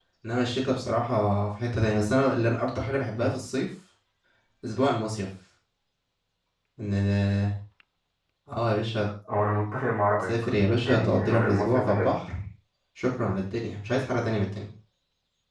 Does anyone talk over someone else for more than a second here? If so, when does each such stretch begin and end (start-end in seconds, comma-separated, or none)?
10.8-12.1